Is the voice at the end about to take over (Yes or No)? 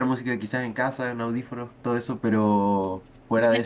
No